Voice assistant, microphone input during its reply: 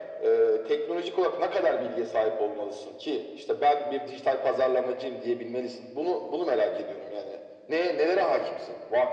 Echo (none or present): present